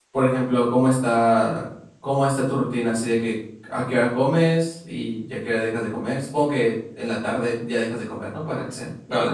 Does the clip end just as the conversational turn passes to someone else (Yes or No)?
Yes